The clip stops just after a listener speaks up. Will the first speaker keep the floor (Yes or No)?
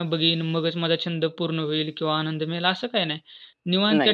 Yes